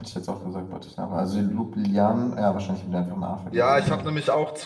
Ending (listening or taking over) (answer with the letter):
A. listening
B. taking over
B